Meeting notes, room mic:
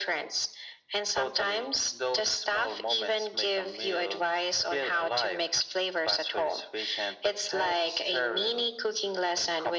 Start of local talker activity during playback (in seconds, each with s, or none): none